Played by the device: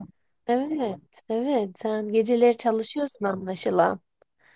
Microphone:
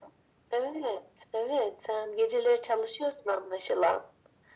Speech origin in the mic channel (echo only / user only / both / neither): echo only